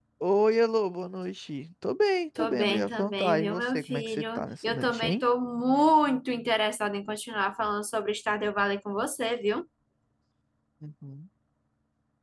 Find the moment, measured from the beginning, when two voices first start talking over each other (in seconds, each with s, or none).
2.4 s